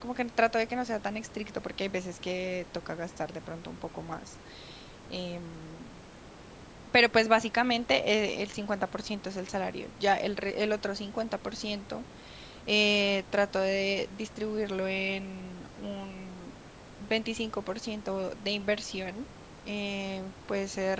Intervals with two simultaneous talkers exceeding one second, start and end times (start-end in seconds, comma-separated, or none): none